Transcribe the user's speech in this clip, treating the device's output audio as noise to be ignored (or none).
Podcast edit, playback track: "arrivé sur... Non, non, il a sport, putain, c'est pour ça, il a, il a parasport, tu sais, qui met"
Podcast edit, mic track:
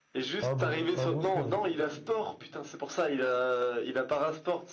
un bon, un bon frérot.